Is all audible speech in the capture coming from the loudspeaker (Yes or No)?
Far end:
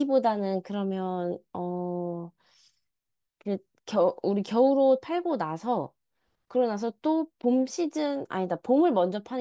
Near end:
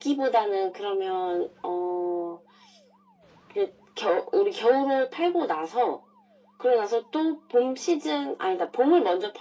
Yes